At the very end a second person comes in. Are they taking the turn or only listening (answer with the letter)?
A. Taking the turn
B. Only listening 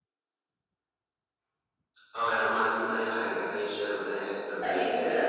A